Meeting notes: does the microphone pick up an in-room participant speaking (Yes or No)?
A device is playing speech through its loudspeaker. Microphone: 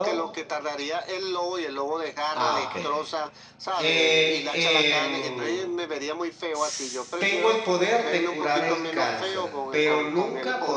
Yes